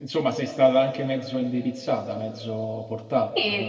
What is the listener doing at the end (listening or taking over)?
taking over